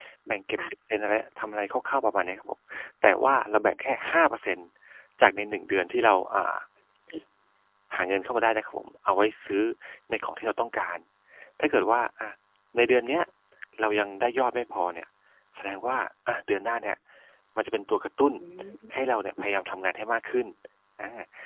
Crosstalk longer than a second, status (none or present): none